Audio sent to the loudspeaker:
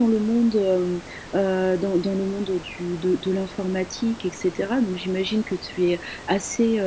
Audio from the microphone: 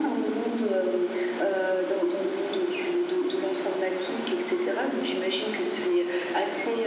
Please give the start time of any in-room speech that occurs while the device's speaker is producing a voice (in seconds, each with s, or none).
none